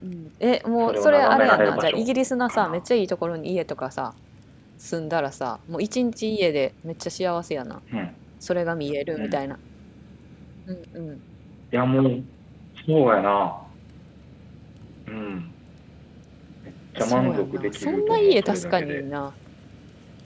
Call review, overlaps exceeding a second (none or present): present